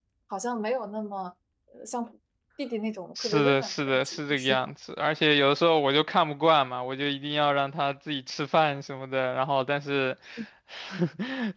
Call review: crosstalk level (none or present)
present